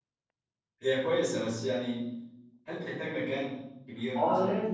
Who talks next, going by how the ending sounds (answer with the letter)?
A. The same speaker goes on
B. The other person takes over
B